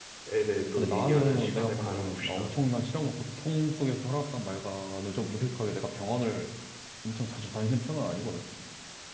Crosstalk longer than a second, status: present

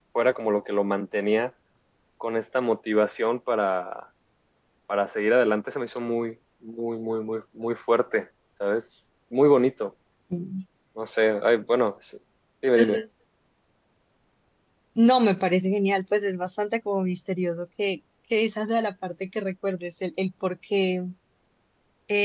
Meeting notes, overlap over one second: none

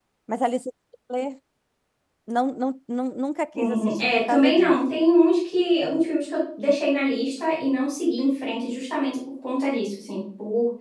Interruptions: present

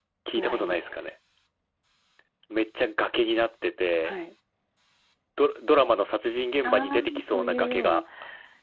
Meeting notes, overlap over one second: present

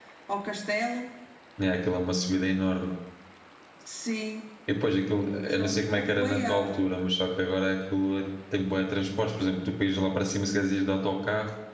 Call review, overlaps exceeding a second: present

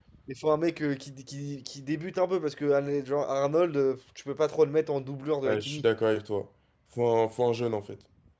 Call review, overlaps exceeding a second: none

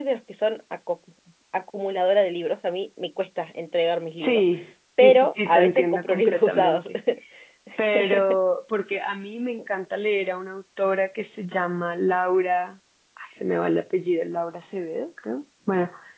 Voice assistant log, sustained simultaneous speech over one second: present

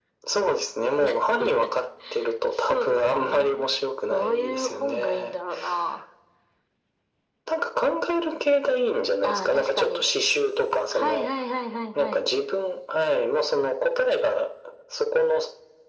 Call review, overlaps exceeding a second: present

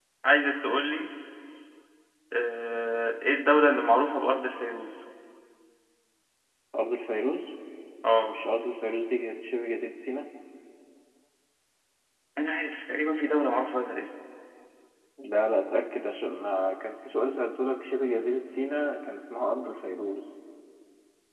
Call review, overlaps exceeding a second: none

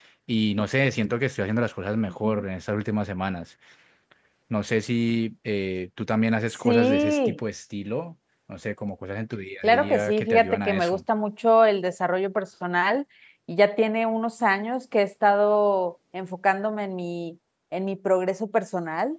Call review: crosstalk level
present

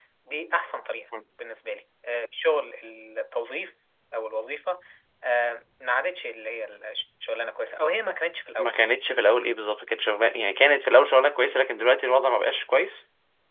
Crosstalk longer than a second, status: none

